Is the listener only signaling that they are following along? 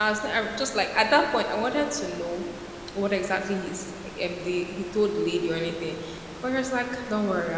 Yes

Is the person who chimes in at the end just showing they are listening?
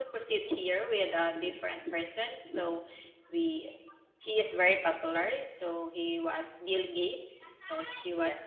Yes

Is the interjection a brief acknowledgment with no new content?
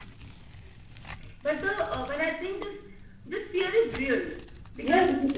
No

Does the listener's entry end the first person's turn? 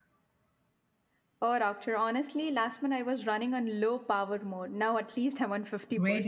Yes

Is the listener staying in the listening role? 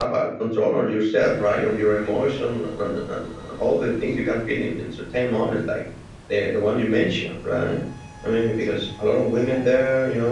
Yes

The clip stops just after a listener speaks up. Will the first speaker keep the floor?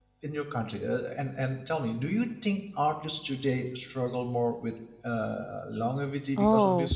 No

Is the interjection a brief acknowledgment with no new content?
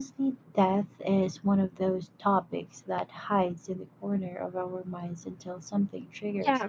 No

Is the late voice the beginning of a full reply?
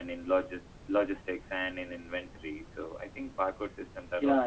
Yes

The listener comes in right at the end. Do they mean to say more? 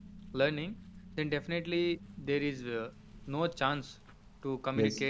No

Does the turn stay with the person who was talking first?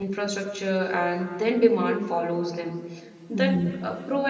Yes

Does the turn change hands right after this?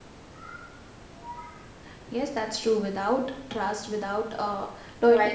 No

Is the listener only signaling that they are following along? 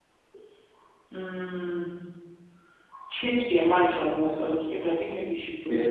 No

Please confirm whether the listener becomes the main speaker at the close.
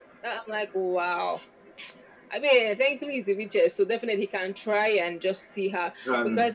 No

